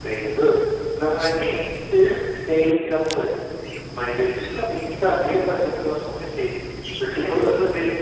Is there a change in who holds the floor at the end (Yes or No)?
No